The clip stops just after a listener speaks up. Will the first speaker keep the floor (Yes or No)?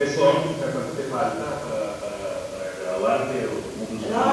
No